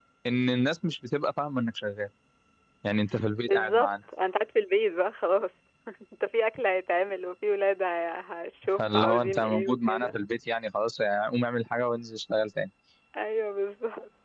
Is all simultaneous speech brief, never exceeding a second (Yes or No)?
No